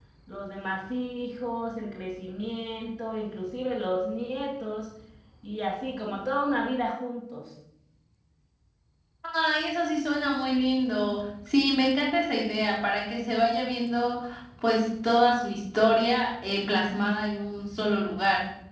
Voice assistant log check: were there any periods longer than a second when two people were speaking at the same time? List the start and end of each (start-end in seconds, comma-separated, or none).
none